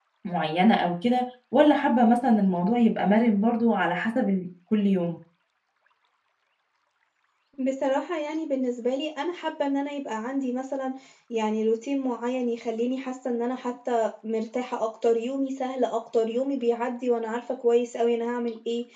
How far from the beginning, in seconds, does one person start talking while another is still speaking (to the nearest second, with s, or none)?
none